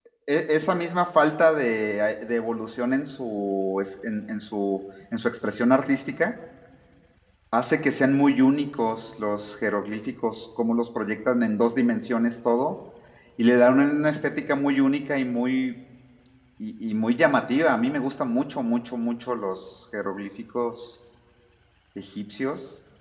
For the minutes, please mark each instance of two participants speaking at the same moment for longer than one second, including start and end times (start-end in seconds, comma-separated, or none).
none